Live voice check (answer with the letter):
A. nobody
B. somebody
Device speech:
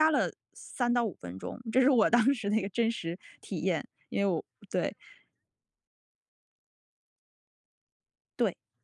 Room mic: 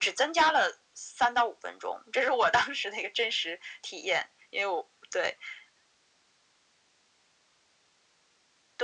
A